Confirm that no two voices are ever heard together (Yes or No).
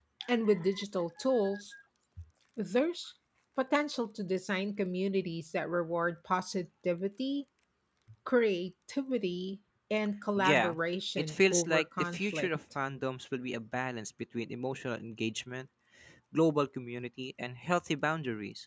No